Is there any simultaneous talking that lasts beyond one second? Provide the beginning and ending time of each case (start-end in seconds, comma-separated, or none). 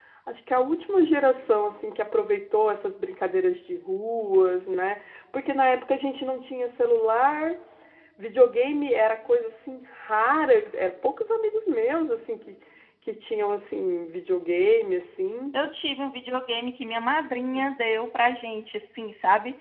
none